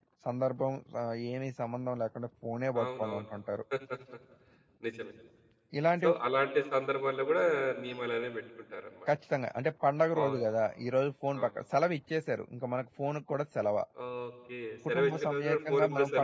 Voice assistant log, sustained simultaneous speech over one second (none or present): present